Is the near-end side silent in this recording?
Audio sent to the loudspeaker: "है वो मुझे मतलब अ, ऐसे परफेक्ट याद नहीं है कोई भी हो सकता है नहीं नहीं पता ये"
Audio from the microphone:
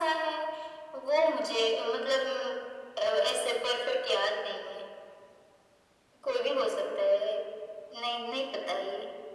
Yes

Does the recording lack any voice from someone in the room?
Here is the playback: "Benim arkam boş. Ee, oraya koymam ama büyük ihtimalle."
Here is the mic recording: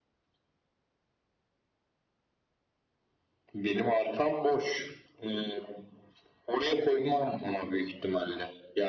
Yes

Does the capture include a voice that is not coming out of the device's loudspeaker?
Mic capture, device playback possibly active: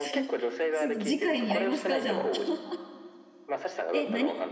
Yes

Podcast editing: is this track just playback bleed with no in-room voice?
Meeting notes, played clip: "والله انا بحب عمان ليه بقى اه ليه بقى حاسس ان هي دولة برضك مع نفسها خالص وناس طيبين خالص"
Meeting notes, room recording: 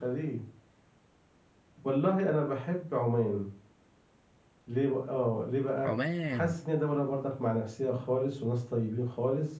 No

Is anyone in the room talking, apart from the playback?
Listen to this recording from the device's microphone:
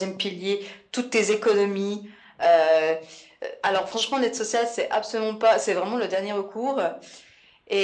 No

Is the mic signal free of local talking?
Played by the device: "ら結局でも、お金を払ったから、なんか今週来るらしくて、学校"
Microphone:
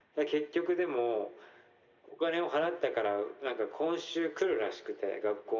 Yes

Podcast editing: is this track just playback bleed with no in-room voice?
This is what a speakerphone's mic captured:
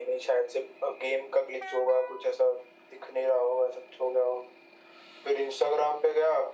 Yes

